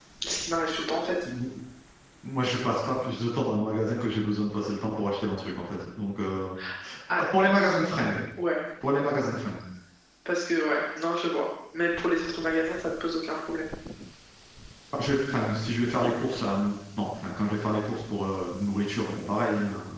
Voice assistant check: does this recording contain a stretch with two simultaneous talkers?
No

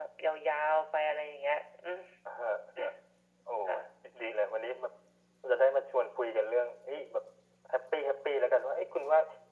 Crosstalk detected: No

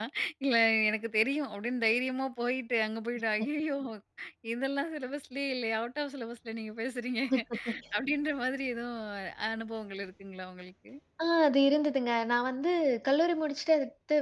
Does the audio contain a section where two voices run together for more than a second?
No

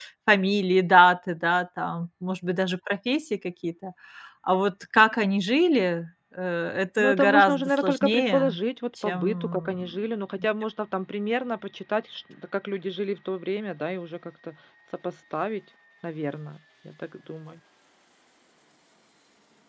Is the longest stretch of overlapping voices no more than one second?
No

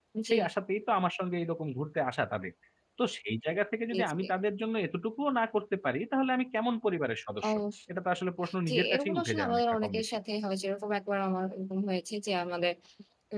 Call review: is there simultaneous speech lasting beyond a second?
Yes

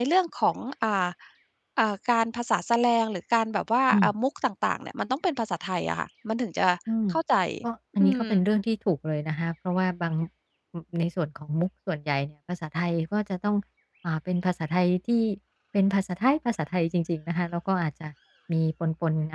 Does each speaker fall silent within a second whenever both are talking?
Yes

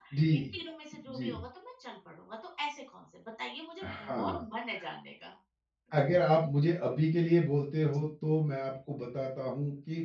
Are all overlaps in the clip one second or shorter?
Yes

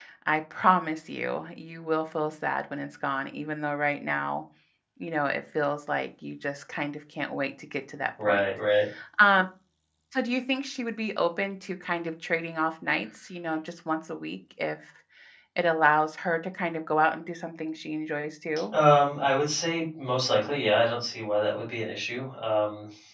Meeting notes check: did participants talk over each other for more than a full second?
No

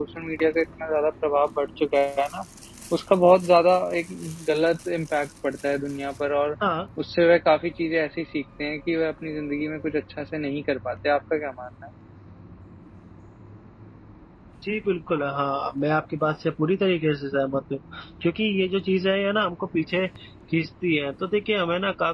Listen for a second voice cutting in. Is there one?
No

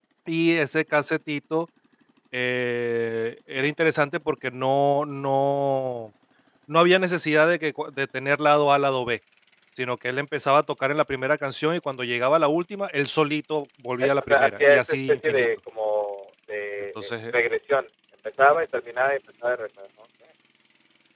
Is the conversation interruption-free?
No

